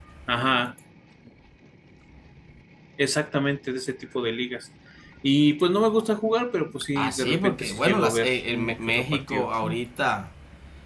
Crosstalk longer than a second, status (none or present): present